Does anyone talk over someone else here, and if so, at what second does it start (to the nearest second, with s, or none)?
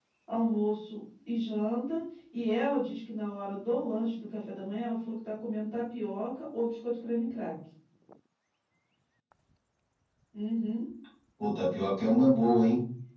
none